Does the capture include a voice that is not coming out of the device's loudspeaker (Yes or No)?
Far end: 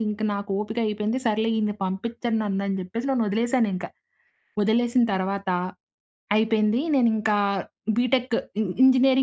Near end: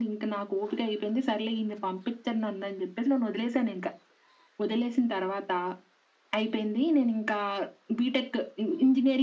No